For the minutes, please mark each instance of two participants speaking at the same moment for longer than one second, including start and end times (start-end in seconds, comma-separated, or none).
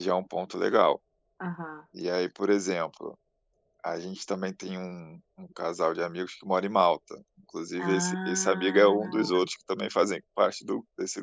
7.8-9.4